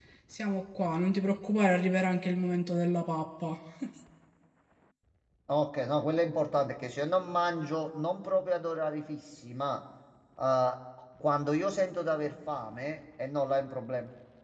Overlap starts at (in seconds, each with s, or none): none